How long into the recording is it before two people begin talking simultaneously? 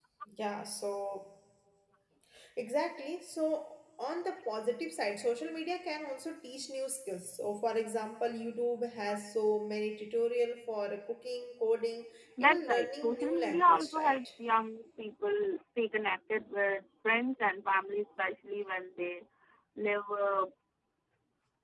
12.4 s

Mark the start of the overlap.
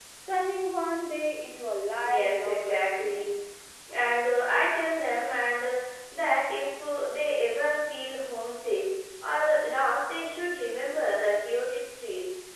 2.0 s

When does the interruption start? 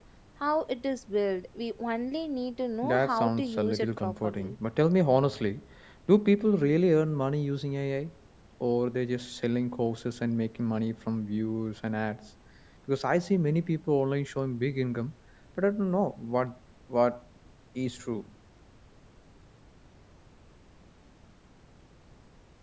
2.8 s

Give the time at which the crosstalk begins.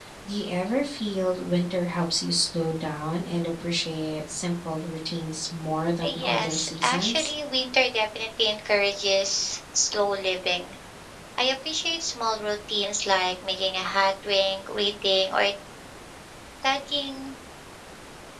6.0 s

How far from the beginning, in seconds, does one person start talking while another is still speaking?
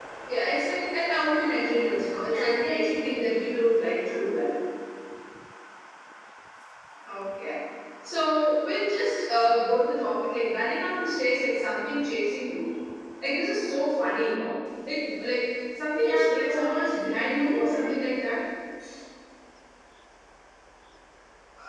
2.2 s

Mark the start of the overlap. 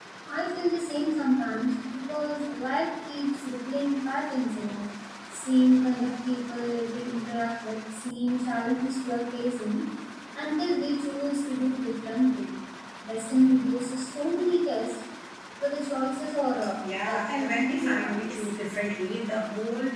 16.8 s

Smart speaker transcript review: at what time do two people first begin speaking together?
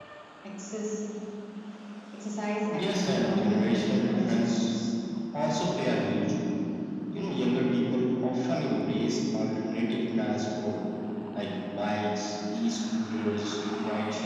2.7 s

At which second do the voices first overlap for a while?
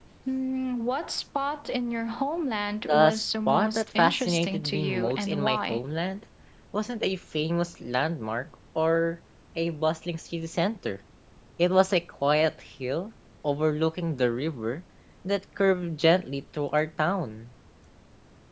2.9 s

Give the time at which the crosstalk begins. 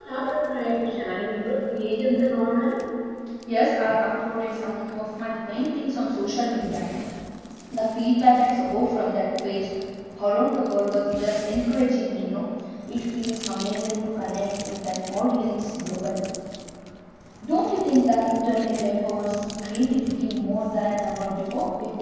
none

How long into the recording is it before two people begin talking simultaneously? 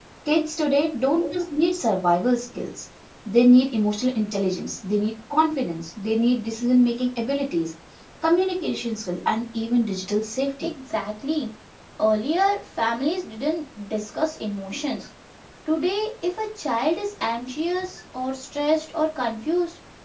none

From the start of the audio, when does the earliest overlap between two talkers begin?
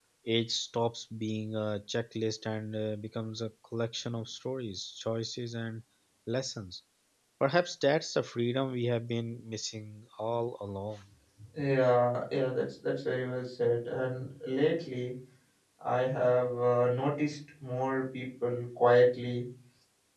none

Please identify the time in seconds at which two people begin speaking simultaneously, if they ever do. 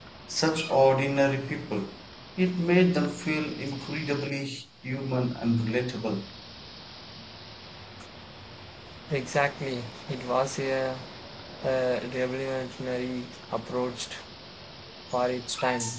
none

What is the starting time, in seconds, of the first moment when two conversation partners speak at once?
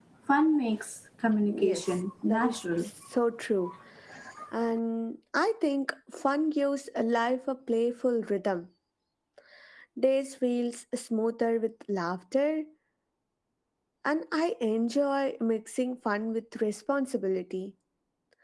1.5 s

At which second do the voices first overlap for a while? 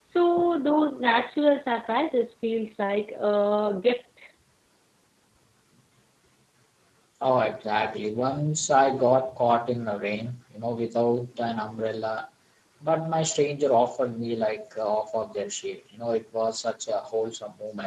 none

